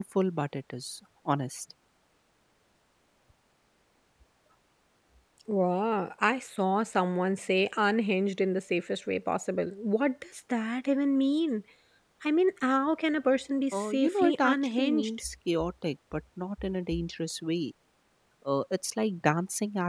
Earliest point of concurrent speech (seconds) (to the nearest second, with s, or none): 14 s